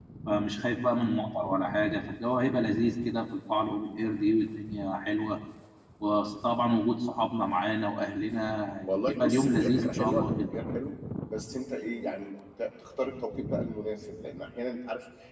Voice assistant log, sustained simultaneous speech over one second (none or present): present